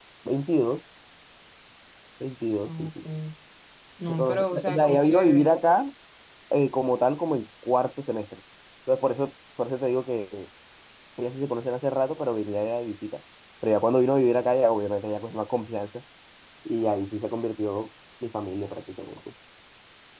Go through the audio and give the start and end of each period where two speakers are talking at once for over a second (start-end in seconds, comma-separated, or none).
4.1-5.5